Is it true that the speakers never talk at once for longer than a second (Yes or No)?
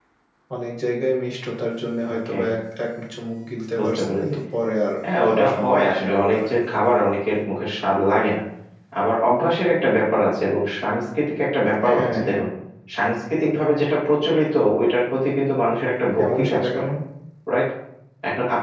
No